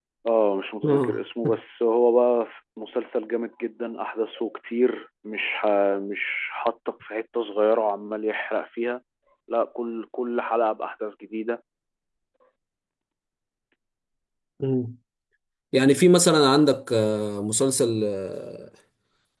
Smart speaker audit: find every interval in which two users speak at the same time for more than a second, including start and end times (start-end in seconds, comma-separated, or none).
none